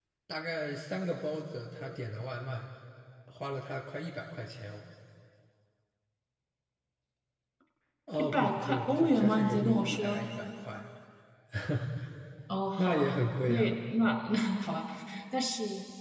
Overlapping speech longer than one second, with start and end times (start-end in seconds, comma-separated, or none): 8.2-10.2